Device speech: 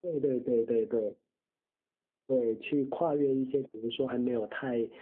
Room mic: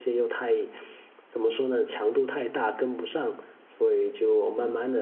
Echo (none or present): none